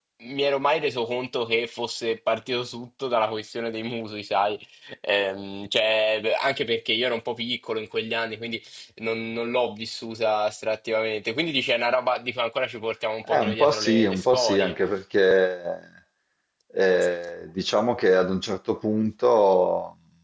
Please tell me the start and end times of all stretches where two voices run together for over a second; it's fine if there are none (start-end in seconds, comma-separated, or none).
13.3-14.7